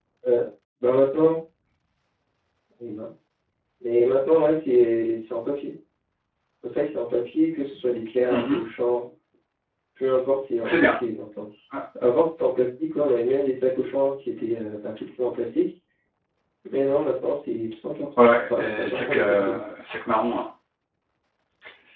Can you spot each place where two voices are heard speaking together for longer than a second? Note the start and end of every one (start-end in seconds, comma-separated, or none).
18.2-19.6